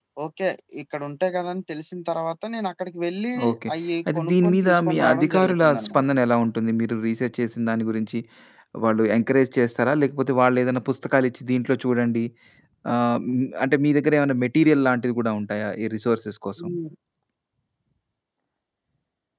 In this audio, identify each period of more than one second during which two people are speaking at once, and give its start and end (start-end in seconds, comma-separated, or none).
4.2-6.0